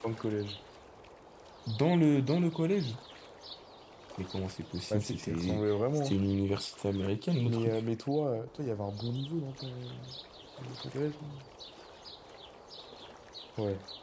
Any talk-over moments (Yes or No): Yes